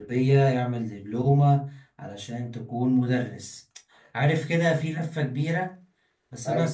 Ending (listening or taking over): listening